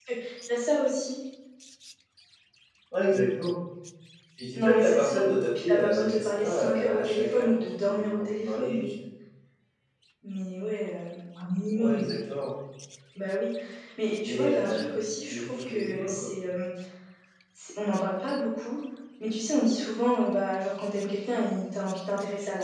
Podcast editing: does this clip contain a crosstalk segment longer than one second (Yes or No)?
Yes